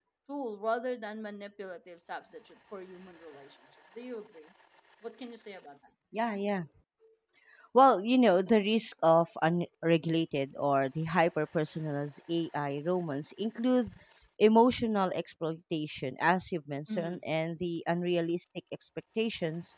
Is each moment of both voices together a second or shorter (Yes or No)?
Yes